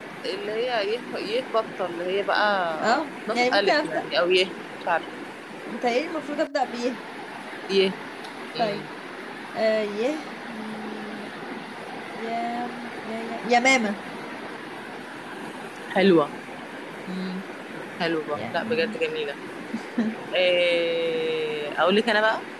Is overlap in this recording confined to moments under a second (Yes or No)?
No